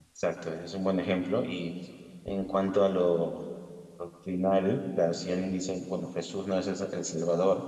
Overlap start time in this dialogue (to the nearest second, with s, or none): none